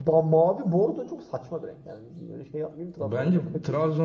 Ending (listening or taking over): taking over